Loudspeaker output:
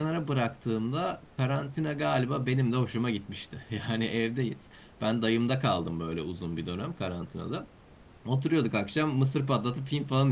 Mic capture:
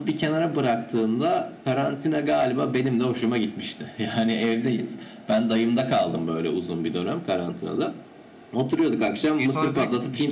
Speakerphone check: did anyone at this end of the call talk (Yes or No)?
Yes